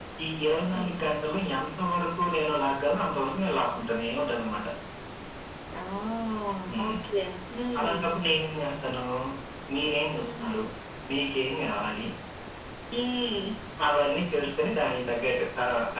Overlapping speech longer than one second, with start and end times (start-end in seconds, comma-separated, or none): none